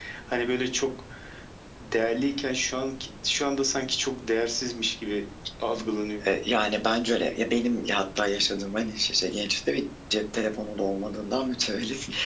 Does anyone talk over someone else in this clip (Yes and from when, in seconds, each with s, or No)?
No